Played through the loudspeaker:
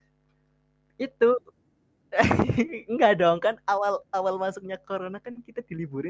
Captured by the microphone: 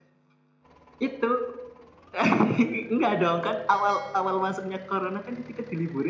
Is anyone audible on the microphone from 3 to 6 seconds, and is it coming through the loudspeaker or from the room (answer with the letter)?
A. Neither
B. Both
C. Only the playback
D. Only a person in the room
C